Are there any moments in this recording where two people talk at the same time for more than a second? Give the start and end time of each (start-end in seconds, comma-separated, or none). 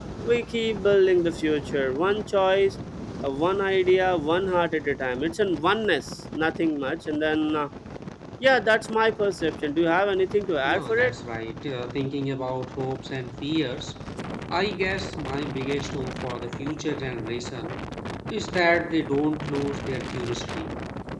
none